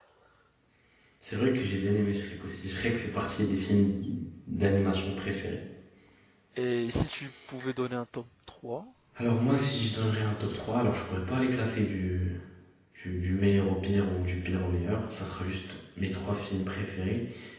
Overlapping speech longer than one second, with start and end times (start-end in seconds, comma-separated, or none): none